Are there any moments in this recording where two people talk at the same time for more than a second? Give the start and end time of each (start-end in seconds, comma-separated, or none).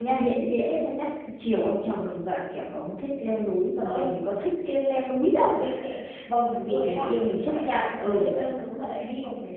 6.3-8.3